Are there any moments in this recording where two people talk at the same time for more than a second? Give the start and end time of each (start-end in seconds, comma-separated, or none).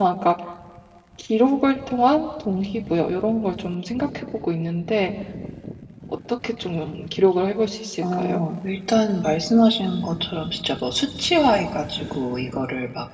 none